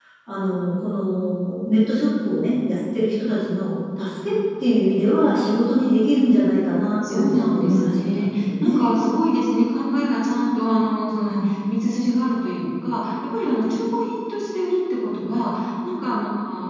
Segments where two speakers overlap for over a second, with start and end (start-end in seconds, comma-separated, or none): 7.1-8.8